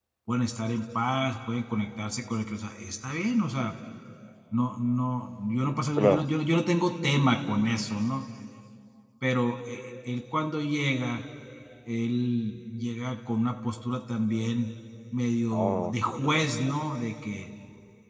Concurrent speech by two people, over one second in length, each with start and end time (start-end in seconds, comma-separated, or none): 15.5-16.7